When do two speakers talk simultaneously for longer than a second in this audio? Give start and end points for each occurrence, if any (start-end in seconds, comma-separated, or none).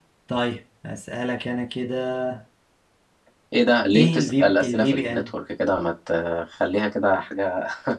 4.0-5.4